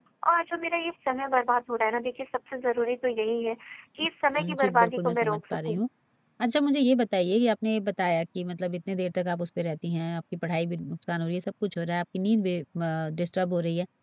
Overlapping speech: Yes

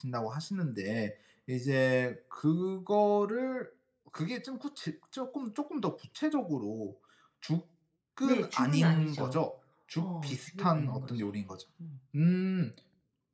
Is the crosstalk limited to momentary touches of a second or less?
No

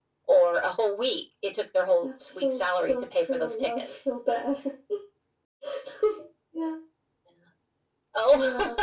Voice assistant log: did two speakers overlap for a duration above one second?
Yes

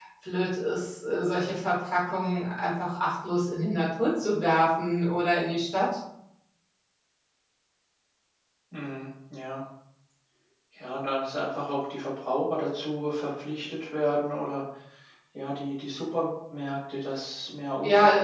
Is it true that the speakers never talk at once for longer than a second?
Yes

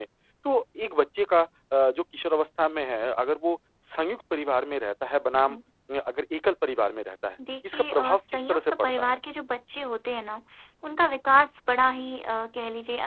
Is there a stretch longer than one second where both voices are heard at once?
Yes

